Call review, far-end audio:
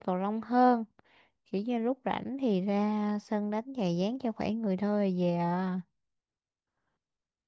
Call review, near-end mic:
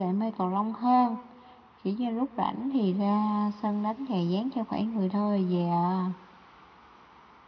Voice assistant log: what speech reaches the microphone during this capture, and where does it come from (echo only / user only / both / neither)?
echo only